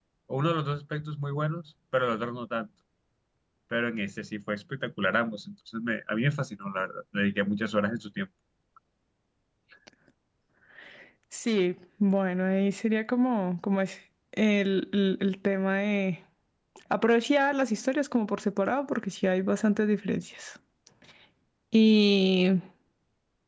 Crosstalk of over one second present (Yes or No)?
No